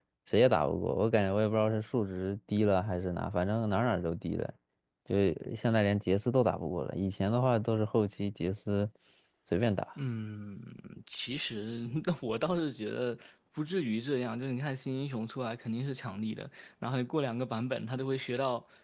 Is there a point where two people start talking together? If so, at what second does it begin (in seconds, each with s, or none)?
none